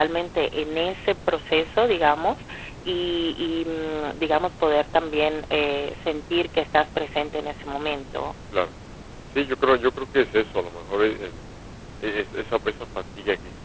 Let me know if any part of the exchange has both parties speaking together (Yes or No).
No